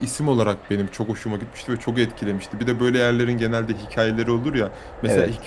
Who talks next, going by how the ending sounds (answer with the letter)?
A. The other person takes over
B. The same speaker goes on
B